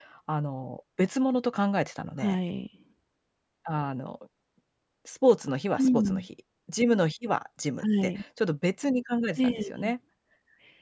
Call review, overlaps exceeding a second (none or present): none